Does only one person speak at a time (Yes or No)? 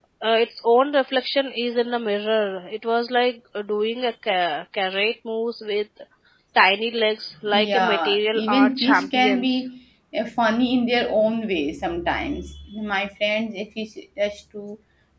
No